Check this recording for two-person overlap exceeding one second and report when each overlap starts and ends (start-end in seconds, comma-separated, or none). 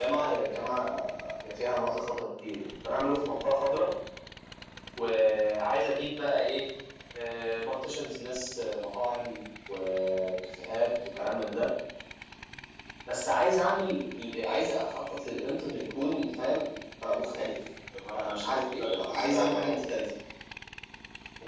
18.1-19.7